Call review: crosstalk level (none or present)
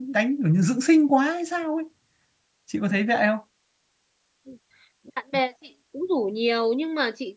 none